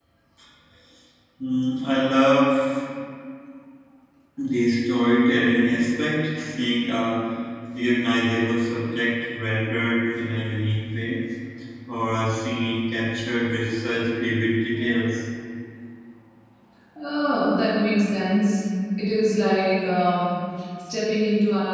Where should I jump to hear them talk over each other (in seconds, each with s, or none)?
none